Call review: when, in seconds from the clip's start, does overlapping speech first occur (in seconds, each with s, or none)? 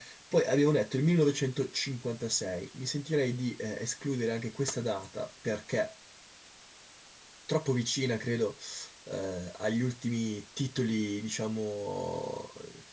none